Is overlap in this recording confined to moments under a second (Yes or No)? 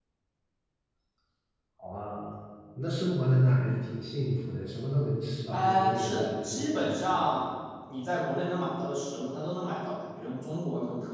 No